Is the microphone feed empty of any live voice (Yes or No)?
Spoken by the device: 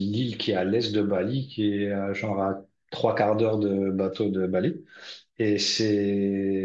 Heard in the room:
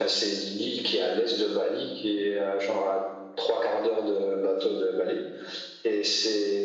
Yes